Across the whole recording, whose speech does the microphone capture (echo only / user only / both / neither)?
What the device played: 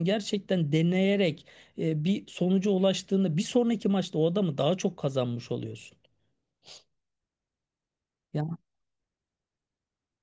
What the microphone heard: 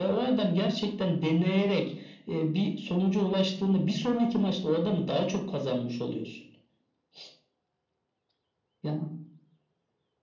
echo only